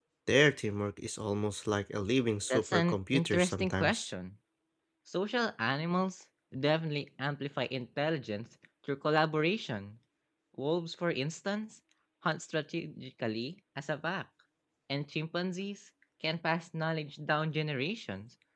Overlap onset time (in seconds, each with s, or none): 2.5 s